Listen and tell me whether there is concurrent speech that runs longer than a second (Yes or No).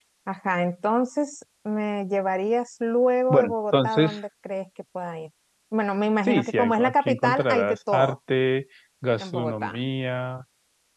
Yes